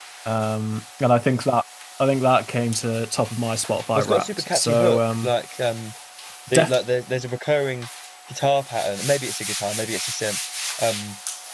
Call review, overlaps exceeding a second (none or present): present